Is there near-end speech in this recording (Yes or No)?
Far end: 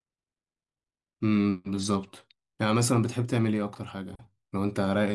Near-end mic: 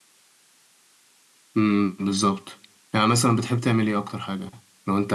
No